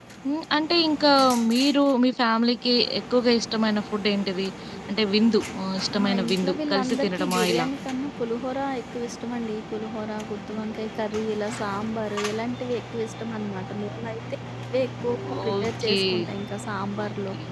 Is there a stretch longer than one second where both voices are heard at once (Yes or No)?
Yes